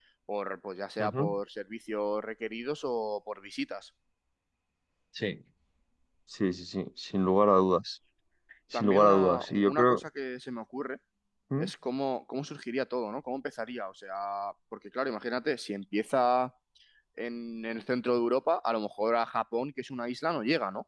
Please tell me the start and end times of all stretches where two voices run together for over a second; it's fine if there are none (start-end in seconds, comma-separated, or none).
8.7-10.0